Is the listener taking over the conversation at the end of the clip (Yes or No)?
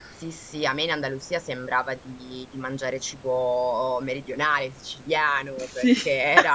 No